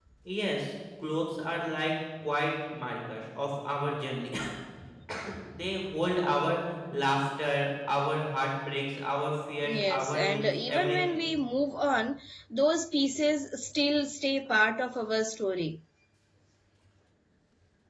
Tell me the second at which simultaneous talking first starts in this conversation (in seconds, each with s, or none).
9.6 s